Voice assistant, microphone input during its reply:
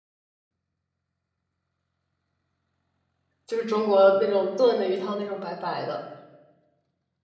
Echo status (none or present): none